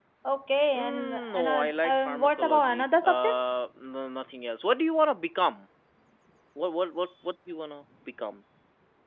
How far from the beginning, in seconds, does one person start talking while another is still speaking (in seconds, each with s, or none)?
0.8 s